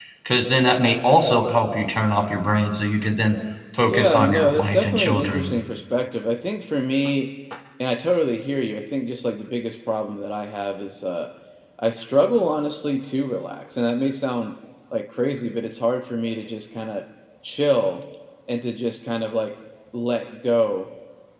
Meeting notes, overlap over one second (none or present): present